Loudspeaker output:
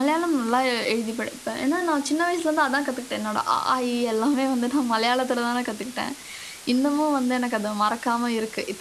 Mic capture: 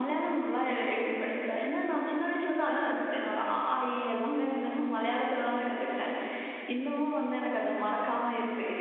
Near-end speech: present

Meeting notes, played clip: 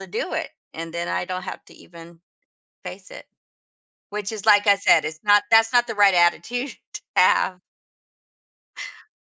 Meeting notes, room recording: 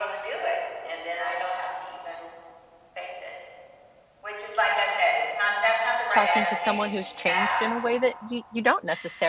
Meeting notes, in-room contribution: present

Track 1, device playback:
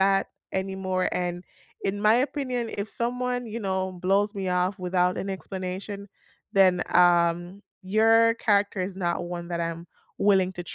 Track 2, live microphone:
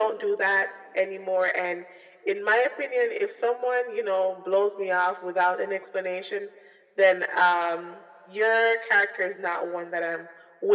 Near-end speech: none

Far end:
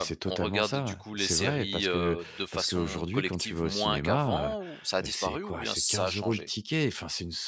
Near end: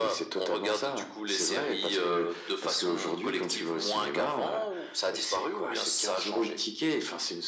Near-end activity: none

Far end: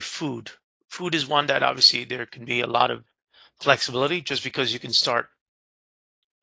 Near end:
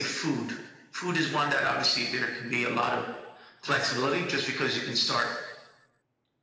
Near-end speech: none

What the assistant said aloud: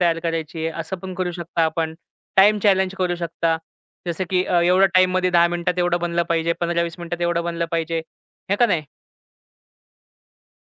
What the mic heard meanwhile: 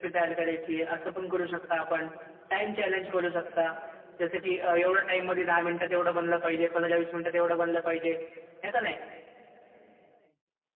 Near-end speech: none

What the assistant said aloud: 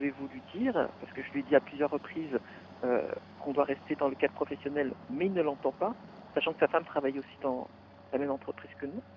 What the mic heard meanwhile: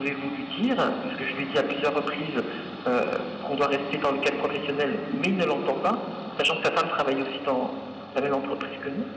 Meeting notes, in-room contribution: none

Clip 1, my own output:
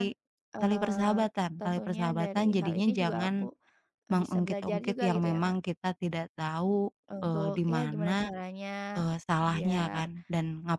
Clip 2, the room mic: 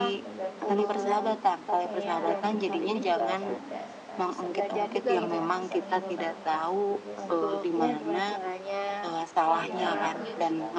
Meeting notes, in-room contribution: present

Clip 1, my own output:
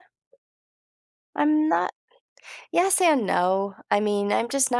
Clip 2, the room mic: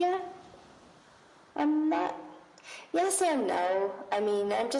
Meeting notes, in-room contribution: none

